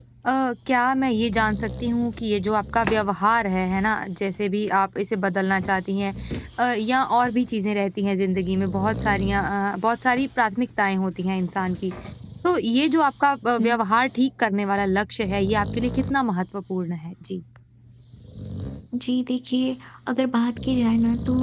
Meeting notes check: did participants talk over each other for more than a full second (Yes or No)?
No